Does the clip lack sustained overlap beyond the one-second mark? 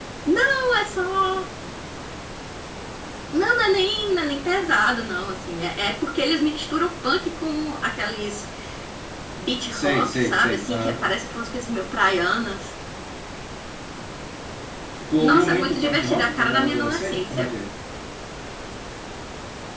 No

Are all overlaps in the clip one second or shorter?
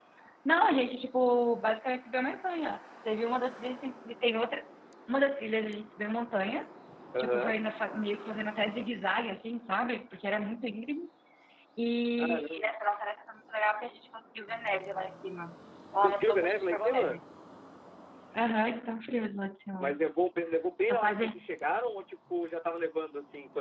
No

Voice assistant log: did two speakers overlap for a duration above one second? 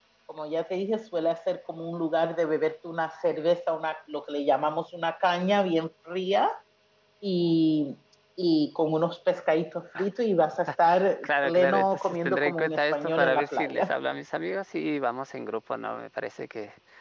Yes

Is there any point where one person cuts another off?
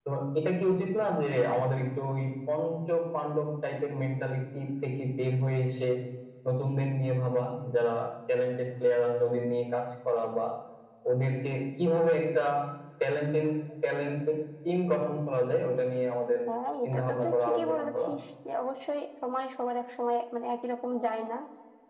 Yes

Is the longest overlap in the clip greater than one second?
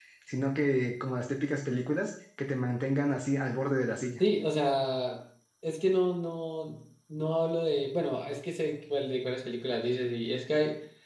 No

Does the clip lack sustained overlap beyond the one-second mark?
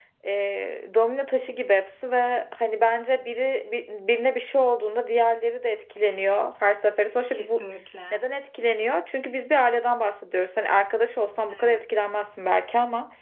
Yes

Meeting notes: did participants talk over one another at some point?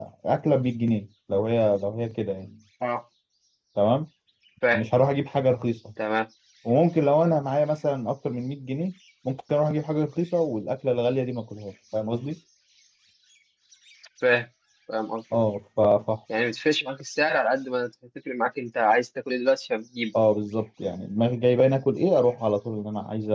No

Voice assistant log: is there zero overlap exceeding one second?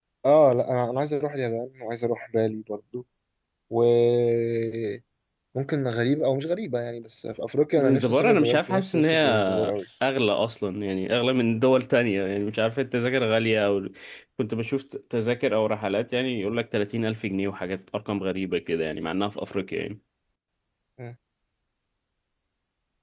No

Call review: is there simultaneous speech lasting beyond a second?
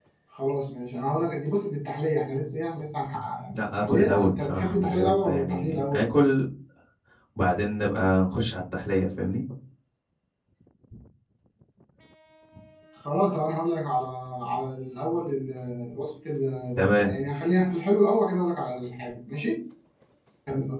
Yes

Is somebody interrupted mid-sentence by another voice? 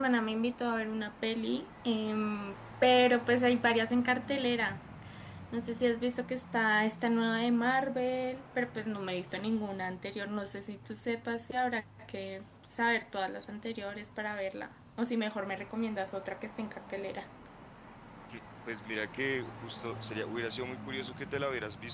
No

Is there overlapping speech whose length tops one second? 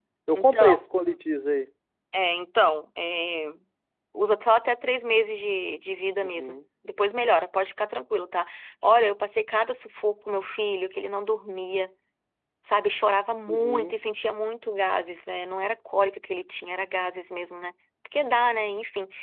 No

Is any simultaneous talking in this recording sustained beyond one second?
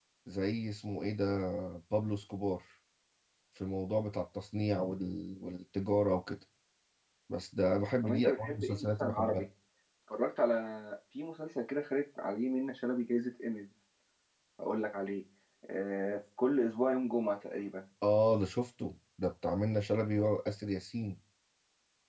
Yes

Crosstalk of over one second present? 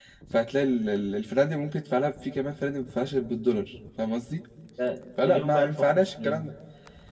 Yes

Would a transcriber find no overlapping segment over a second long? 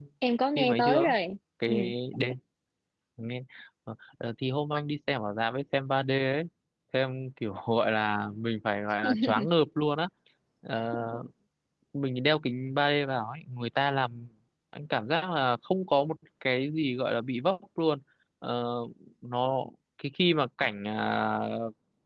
Yes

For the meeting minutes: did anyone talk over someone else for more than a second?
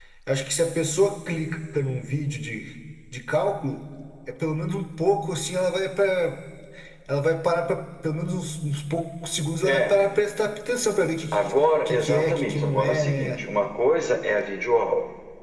Yes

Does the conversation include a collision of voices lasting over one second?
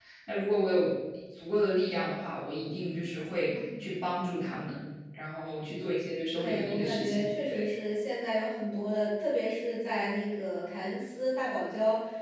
Yes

